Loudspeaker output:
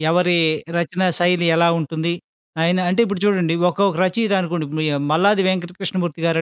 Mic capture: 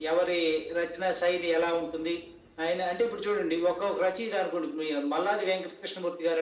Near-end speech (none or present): none